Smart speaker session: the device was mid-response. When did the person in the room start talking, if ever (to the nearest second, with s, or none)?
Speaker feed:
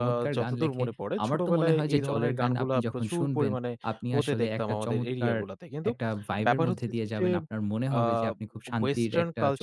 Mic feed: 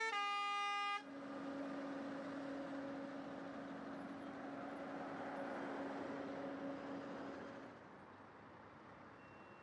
none